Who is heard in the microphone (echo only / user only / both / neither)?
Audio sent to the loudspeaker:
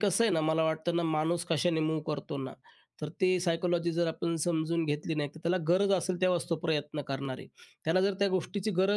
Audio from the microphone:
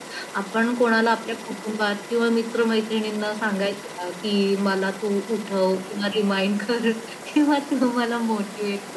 user only